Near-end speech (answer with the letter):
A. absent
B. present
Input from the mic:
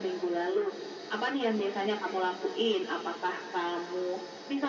A